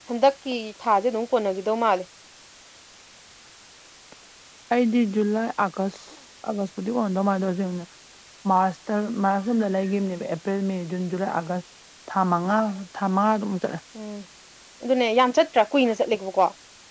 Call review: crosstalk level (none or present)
none